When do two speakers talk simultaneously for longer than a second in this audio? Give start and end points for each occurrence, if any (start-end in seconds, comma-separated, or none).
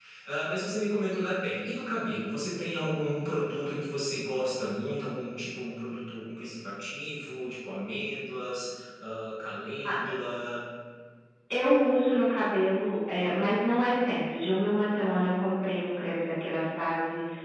none